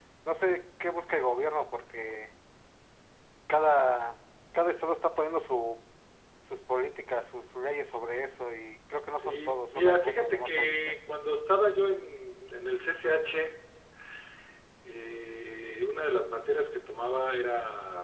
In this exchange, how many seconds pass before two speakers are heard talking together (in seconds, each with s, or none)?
9.2 s